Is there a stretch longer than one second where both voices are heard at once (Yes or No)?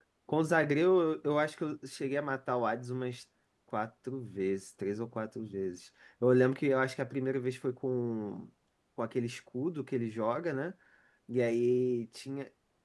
No